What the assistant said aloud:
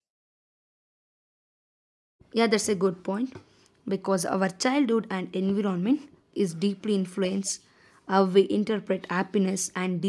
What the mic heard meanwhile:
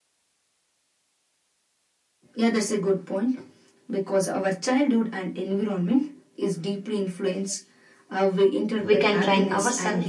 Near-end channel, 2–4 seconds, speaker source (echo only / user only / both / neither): echo only